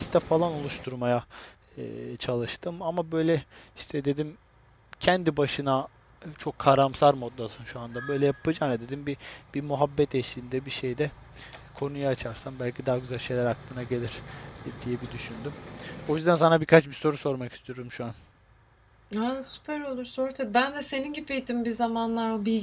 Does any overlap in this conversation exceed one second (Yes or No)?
No